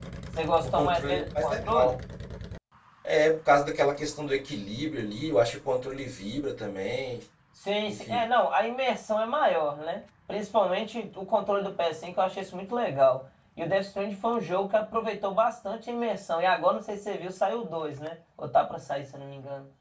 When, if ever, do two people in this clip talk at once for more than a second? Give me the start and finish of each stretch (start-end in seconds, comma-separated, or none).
0.6-1.9